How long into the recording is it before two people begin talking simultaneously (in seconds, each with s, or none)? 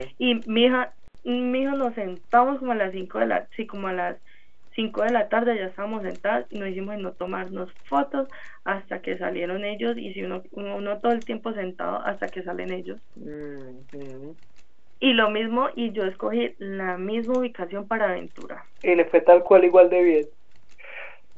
none